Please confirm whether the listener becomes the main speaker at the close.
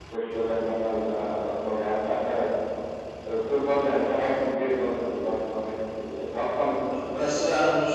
Yes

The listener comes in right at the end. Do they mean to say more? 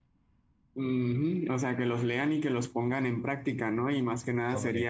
No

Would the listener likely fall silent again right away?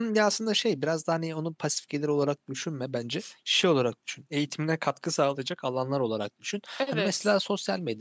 Yes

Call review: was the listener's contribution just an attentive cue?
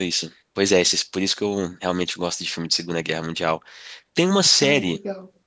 Yes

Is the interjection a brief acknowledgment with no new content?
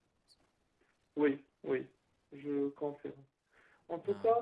Yes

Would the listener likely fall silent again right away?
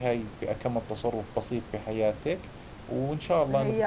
No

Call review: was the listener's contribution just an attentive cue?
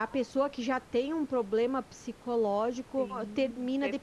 No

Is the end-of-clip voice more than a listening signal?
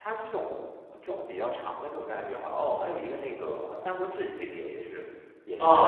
Yes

